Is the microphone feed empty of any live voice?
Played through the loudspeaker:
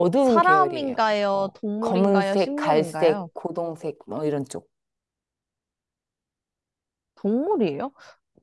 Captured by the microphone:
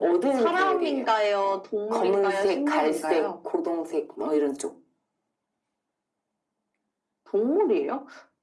Yes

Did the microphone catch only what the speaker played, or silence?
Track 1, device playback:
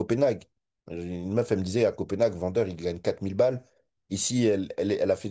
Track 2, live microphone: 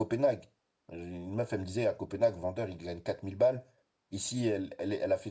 Yes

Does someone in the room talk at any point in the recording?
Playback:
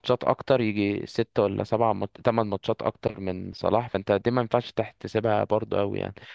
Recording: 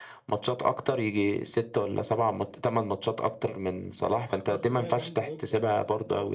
Yes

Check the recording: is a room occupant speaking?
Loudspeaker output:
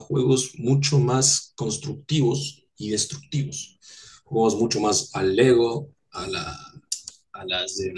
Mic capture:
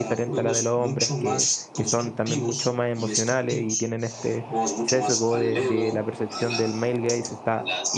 Yes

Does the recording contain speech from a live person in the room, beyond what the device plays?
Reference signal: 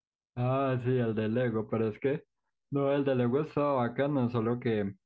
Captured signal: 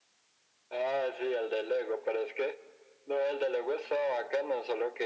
No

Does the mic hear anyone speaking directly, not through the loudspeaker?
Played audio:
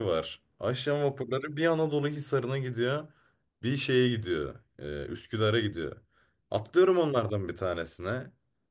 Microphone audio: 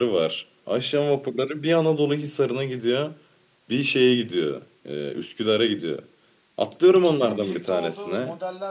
Yes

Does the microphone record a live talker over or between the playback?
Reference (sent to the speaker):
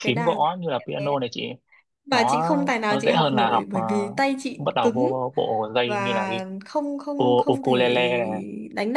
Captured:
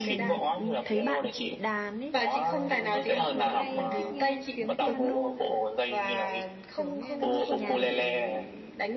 Yes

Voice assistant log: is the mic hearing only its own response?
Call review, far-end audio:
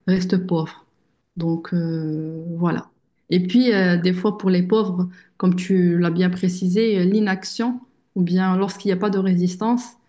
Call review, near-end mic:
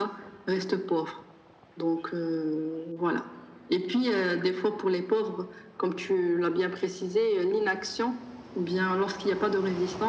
Yes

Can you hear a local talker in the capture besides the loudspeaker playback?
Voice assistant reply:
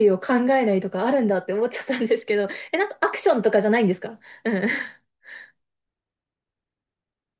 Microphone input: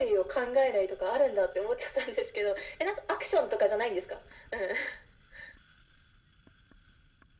No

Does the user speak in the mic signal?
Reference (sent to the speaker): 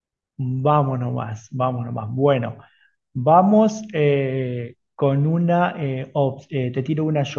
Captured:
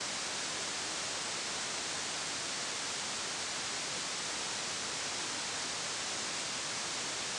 No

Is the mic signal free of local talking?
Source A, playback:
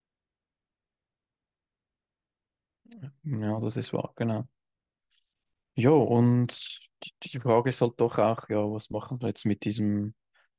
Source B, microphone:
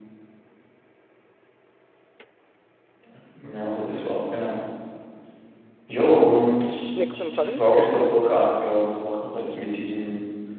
No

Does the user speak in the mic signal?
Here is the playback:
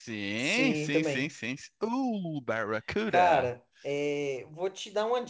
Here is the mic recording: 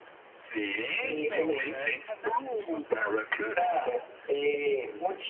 Yes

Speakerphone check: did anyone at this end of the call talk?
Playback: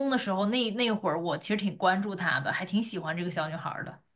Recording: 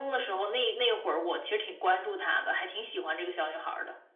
No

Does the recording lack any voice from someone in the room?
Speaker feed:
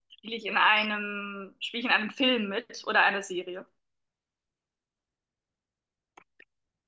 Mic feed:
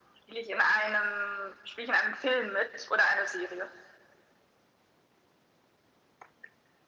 Yes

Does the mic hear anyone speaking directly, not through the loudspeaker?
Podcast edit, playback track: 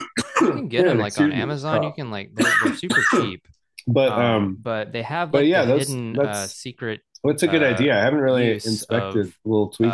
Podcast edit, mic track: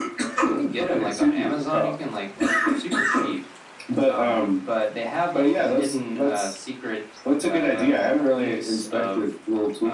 No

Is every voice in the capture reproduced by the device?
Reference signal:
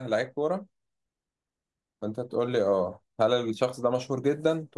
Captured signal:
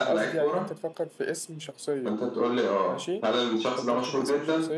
No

